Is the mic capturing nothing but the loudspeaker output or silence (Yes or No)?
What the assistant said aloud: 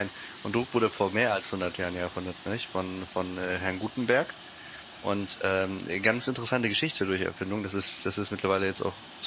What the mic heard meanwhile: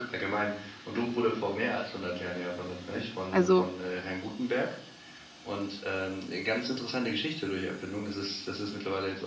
No